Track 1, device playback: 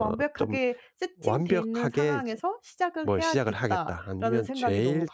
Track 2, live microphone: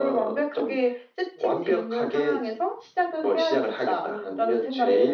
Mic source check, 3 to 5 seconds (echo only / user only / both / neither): both